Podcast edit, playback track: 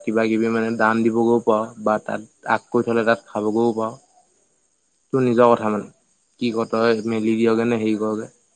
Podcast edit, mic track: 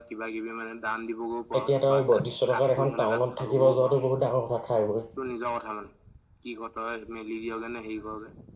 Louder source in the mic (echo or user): user